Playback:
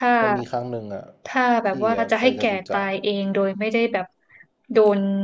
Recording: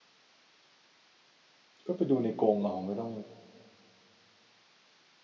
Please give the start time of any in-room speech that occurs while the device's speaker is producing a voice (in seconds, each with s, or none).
1.8 s